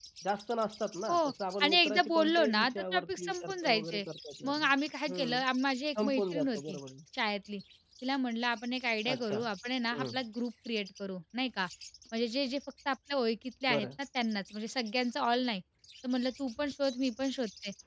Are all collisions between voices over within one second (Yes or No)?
No